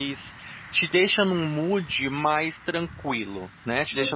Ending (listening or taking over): listening